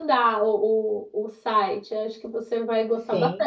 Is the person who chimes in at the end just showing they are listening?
Yes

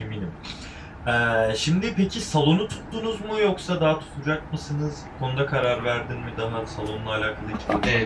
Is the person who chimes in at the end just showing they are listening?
No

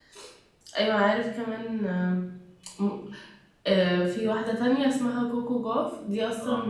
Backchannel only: Yes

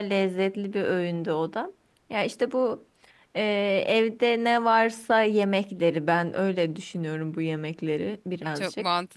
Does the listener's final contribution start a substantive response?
Yes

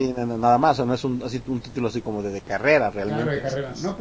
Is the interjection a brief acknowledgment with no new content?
No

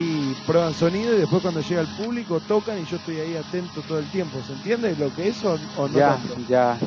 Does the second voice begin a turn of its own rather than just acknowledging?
Yes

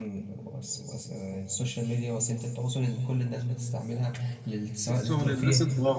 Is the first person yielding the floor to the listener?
Yes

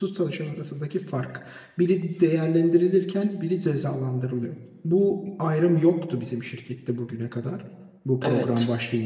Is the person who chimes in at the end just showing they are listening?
No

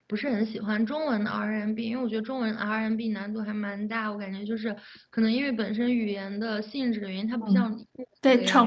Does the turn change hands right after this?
Yes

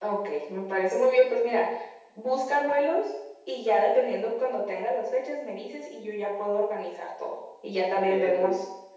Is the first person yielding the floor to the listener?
No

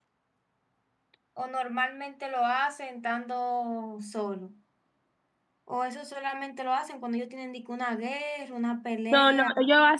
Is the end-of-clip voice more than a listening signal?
Yes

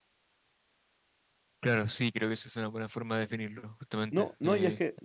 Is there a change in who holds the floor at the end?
Yes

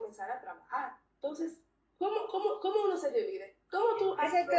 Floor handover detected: Yes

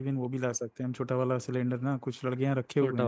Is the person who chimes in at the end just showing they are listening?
Yes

